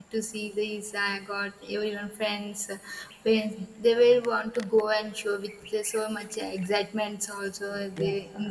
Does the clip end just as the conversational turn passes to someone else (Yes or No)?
Yes